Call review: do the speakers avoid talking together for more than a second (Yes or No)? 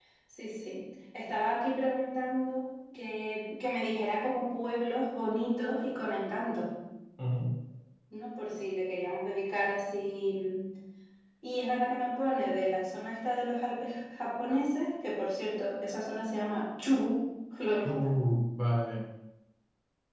Yes